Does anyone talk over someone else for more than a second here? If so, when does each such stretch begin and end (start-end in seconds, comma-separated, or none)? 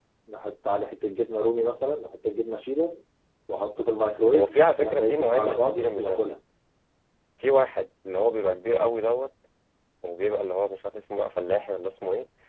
4.3-6.2